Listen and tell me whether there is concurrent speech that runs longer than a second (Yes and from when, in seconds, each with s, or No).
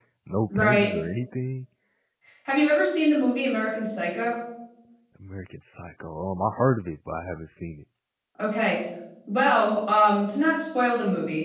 No